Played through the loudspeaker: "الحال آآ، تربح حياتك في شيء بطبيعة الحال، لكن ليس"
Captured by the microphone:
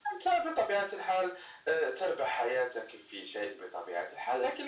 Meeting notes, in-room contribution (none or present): none